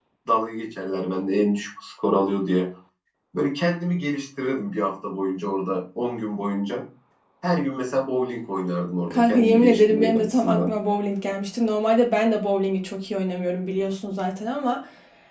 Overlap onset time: 9.1 s

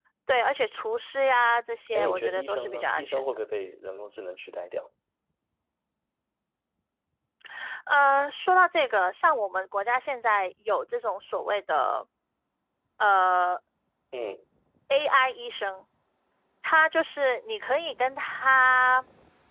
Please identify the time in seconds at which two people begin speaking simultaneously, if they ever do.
1.9 s

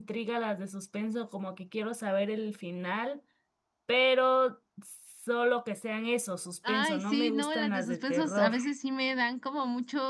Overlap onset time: 6.6 s

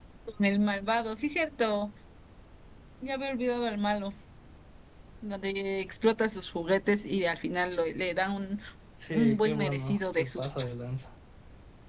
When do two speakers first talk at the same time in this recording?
9.1 s

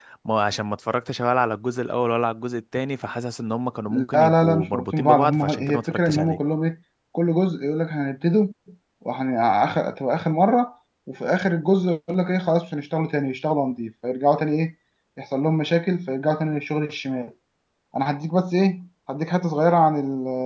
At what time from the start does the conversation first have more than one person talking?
3.9 s

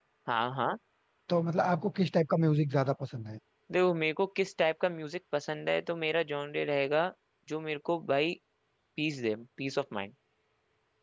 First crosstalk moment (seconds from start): none

